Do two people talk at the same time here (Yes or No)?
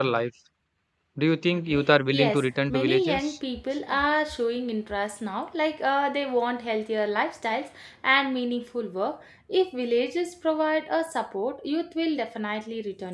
Yes